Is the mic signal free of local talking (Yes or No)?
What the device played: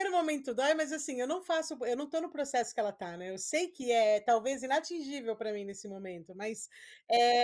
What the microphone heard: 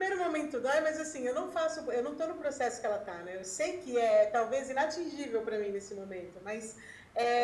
Yes